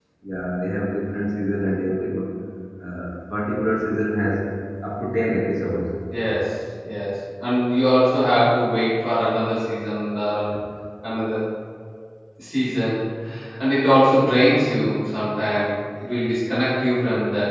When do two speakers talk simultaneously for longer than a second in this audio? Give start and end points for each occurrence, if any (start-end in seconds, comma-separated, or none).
none